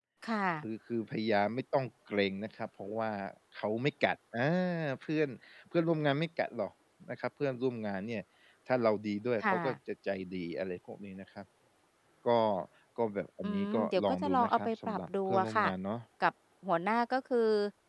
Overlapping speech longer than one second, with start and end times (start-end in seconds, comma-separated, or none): 13.4-15.6